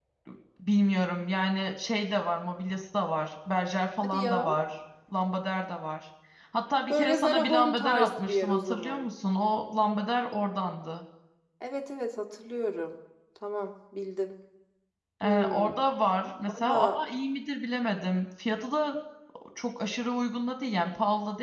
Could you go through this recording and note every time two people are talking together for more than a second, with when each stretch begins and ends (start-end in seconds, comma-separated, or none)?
6.9-9.1